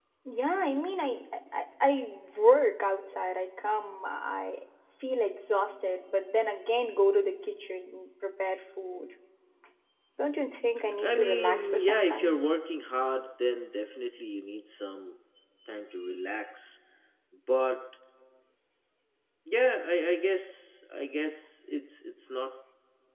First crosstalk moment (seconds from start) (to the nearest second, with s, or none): 11 s